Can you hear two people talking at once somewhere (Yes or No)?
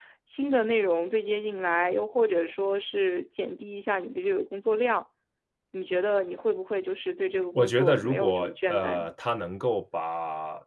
Yes